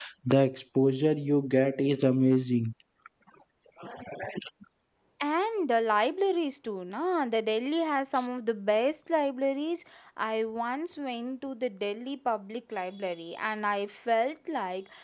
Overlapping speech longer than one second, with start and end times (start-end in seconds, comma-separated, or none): none